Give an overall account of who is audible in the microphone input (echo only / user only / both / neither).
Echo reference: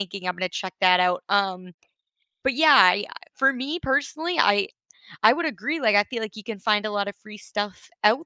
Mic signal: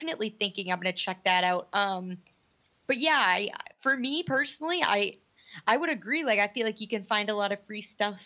echo only